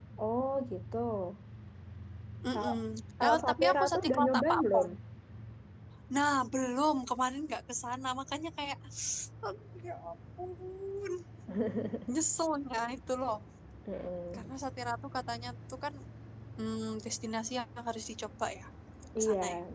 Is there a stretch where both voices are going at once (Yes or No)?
Yes